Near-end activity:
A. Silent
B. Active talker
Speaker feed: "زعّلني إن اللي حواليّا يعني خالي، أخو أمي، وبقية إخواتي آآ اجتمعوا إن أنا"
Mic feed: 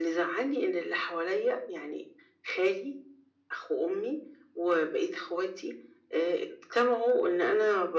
A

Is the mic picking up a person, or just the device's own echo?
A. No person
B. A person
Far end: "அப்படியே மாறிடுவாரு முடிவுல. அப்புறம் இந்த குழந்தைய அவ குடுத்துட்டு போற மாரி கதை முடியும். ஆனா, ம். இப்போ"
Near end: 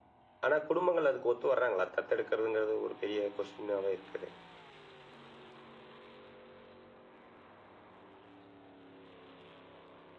B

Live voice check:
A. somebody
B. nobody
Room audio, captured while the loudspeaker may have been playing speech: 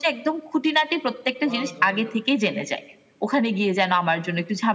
A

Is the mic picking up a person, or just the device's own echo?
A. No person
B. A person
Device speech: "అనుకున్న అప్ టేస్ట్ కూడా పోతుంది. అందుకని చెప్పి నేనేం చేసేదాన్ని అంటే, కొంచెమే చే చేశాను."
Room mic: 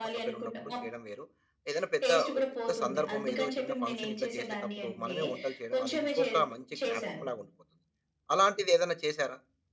B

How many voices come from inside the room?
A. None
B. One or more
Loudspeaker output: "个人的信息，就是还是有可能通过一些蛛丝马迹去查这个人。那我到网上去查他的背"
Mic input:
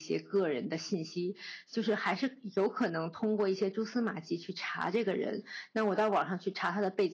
A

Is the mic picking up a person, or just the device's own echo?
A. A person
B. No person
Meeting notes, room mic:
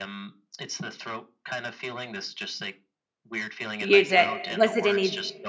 A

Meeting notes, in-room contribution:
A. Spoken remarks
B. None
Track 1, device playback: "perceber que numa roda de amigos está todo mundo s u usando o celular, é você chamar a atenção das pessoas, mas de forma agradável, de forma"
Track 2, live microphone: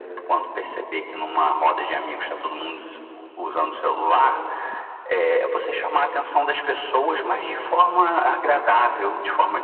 B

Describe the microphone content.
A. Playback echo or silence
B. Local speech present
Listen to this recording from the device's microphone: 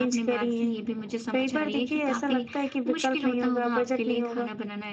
A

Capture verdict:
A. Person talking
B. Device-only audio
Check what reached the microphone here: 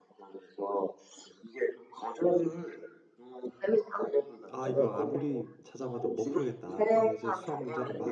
A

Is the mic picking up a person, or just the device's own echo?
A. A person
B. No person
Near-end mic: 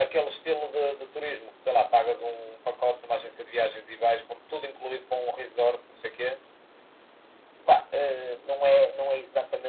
B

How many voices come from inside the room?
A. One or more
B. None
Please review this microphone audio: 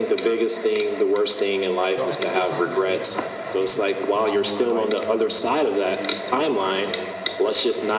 A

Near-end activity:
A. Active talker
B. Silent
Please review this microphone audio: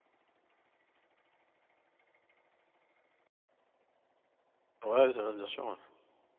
A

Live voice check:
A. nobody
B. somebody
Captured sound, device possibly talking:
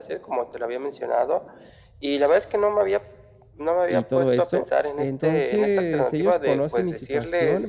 B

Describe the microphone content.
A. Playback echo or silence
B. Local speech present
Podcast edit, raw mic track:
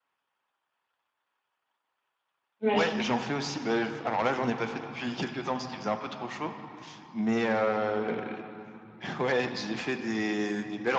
B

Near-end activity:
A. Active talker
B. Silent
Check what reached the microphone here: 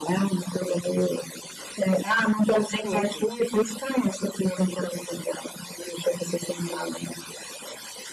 A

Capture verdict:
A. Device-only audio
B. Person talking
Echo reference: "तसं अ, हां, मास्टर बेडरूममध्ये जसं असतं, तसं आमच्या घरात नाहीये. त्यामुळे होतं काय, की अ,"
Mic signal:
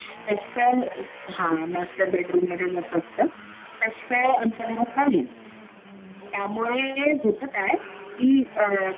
A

